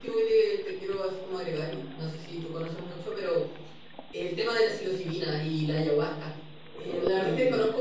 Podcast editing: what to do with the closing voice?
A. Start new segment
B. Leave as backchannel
B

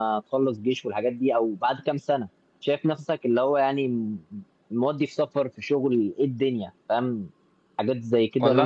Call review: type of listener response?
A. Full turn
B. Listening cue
A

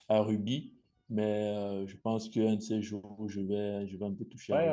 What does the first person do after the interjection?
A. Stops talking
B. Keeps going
A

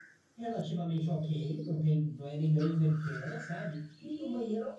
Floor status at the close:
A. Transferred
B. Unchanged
B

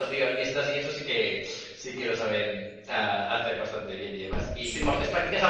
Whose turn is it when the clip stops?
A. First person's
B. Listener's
A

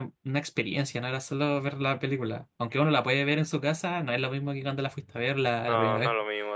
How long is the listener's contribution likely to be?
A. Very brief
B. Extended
B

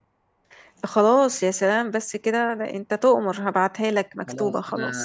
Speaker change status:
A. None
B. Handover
B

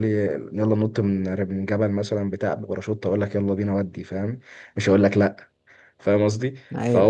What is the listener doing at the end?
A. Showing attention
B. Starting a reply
A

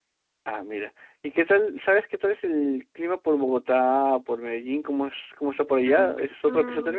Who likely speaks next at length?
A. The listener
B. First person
A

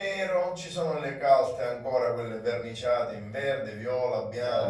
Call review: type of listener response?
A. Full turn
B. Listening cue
B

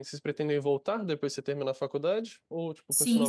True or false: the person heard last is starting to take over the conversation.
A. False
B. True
B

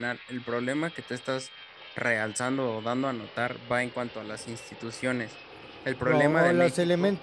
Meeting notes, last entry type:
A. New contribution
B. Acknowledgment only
A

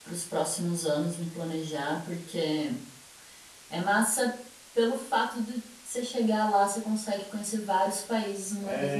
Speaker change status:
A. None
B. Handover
B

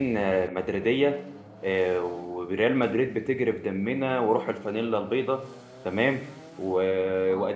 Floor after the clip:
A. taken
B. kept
B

